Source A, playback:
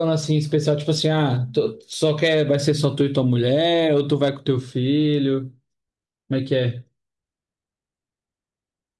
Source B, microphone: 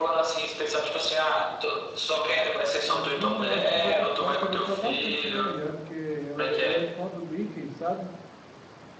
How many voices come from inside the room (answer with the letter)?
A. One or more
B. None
A